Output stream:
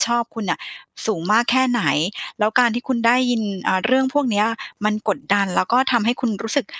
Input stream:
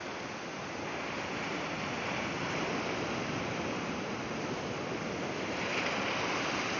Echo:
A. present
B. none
B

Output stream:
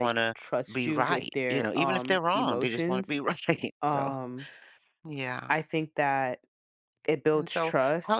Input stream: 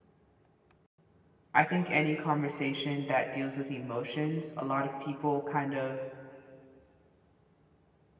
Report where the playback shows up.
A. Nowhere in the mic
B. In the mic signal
A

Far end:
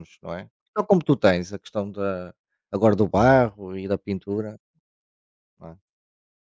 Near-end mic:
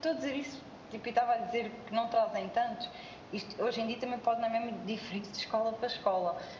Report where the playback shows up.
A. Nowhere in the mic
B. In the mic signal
A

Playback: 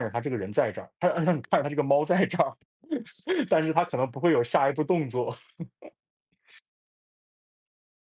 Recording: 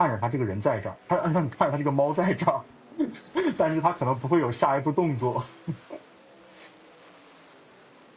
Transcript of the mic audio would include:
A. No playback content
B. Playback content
B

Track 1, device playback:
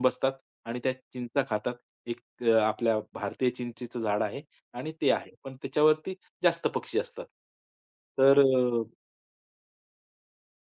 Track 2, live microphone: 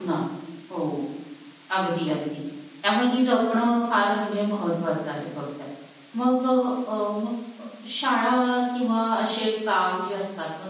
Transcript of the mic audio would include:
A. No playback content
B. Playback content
A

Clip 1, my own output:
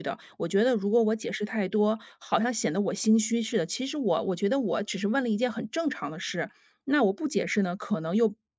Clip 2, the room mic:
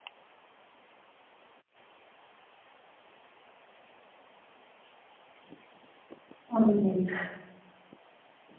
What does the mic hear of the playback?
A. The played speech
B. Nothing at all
B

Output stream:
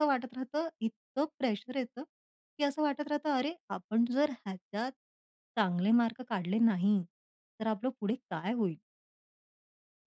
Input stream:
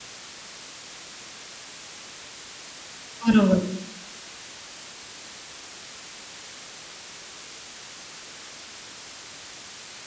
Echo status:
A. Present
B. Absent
B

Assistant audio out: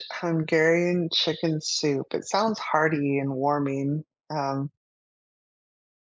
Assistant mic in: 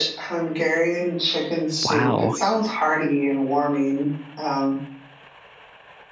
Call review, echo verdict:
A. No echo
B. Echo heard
B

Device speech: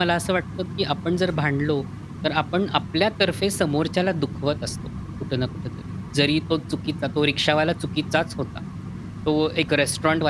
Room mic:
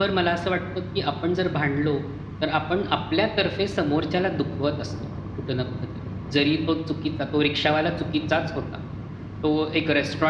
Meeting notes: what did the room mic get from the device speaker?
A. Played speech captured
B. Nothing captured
A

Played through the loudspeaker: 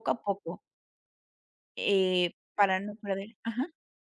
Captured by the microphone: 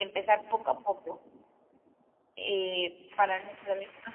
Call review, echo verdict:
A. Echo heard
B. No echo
A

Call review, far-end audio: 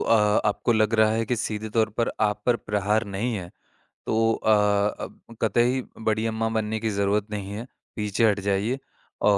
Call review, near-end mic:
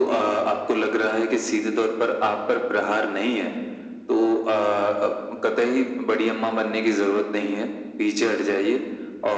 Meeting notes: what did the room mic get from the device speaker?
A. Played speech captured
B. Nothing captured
A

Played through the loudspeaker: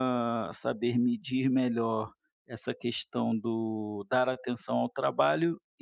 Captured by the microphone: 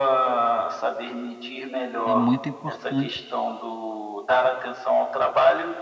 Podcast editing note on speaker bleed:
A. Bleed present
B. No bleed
A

